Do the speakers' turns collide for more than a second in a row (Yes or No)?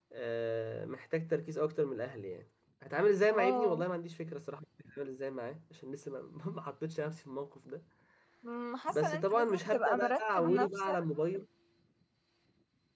Yes